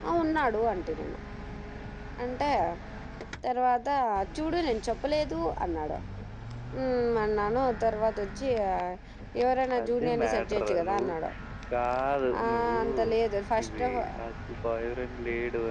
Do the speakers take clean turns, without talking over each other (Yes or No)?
No